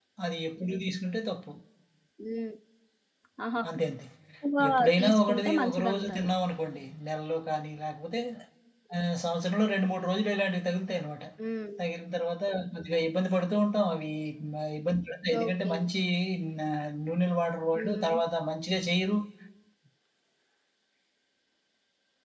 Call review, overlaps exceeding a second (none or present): present